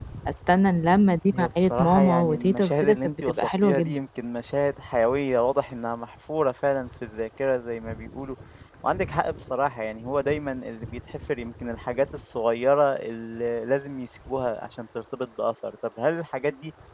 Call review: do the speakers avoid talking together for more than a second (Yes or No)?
No